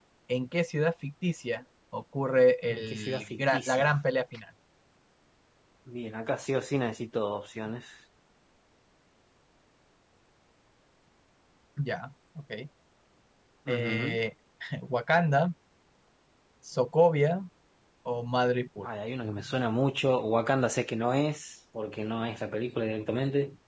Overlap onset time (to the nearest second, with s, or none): 3 s